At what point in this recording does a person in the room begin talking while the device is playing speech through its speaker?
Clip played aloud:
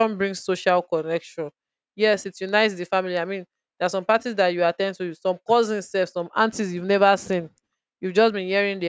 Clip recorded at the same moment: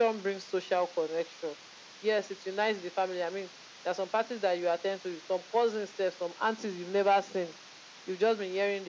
none

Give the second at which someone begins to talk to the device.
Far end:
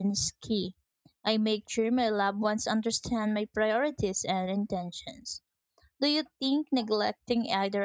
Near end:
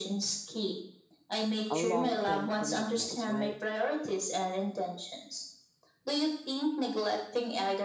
2 s

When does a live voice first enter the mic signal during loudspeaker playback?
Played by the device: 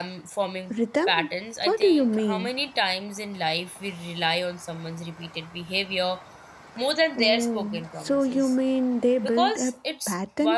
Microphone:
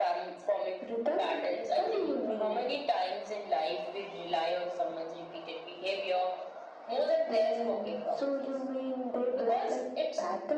none

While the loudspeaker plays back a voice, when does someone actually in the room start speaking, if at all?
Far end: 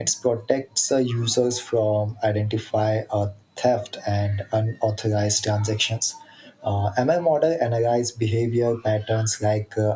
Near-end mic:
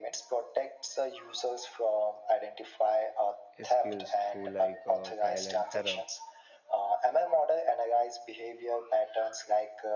4 s

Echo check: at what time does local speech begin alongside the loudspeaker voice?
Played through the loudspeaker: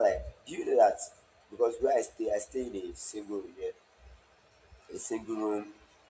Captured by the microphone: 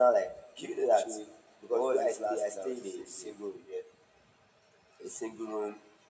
1 s

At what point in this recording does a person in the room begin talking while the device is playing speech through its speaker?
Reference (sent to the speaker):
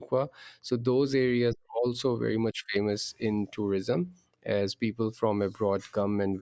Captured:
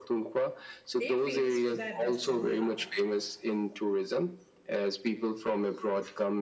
1 s

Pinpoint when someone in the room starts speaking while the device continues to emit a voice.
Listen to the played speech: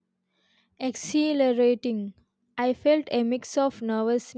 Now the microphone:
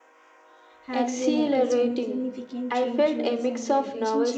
1 s

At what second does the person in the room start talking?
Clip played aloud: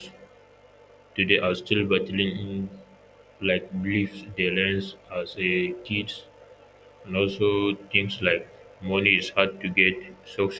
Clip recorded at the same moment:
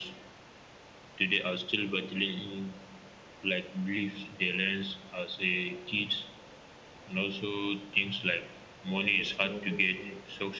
9 s

